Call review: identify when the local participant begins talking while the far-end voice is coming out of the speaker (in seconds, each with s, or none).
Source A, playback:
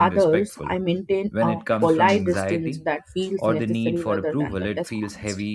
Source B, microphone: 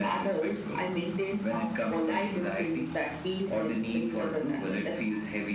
none